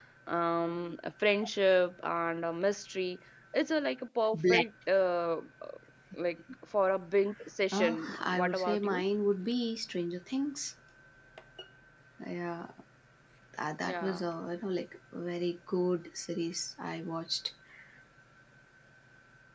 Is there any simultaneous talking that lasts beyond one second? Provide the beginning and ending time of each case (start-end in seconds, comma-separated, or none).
7.7-9.0